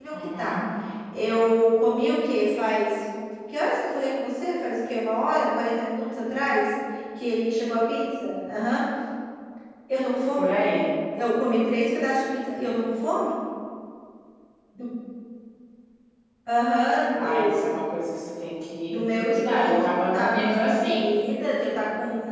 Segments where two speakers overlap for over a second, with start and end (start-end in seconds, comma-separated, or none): 18.9-21.0